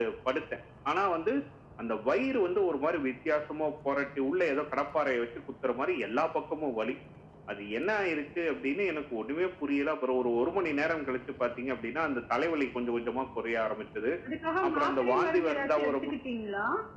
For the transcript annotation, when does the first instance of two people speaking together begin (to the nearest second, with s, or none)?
15 s